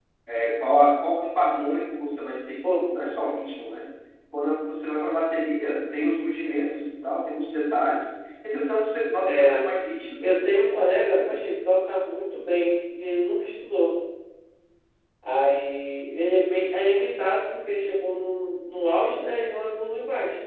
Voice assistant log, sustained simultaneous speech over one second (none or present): none